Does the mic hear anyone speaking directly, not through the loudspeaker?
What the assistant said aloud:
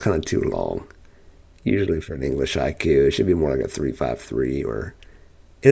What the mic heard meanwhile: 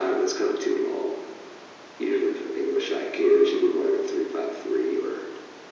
No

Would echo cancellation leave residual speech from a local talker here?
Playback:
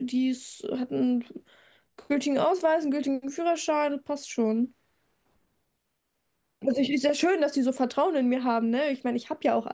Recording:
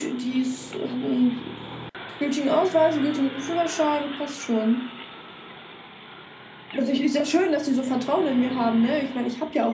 No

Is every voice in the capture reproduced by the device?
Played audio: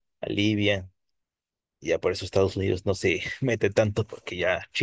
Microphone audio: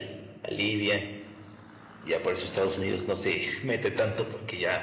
Yes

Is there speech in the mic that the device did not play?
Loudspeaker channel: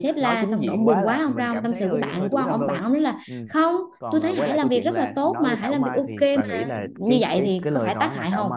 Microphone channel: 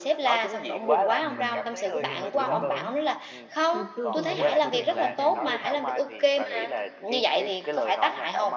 Yes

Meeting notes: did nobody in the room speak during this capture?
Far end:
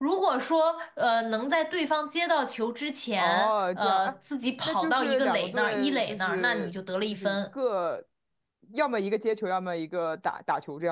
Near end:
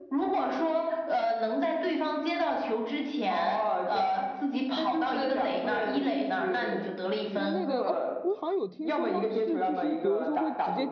No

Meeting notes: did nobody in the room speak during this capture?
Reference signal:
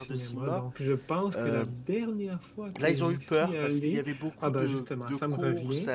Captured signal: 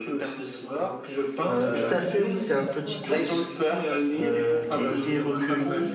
No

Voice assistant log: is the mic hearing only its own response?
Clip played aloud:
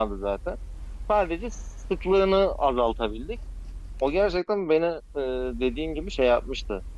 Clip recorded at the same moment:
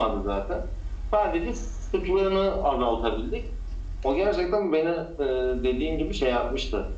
Yes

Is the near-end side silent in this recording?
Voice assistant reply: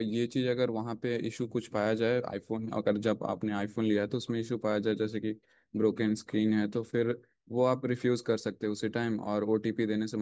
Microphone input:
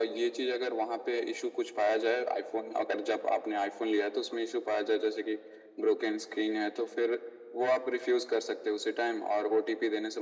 Yes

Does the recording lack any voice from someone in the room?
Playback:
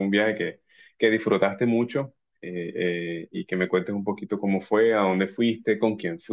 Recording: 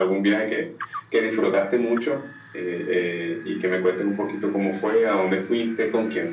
Yes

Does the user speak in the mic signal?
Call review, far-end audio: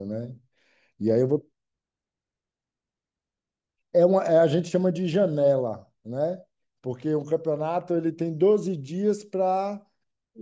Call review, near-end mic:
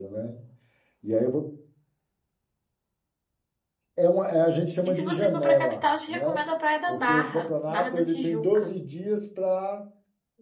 Yes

